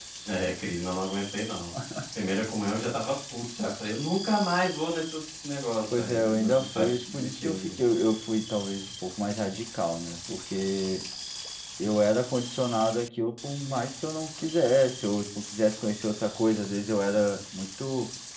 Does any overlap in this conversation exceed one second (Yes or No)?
Yes